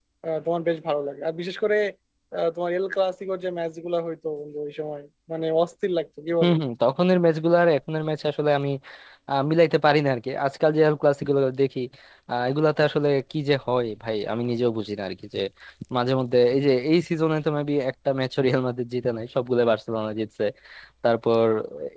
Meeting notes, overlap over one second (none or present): none